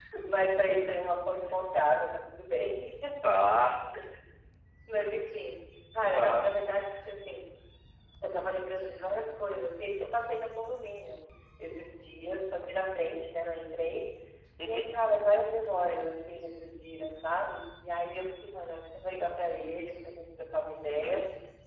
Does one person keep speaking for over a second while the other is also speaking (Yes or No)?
No